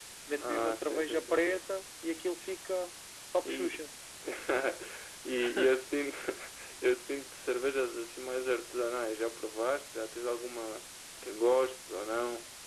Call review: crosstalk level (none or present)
present